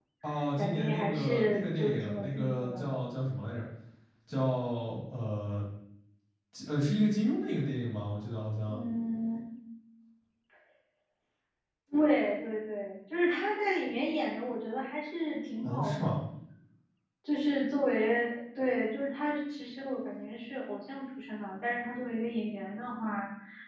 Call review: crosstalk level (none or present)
present